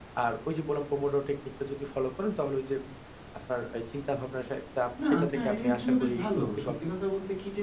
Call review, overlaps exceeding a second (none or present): present